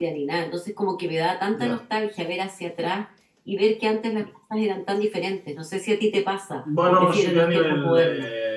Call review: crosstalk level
present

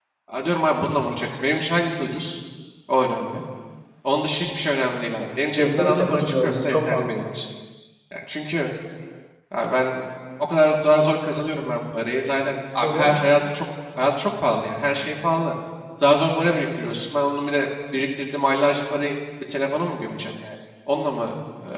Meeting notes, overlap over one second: present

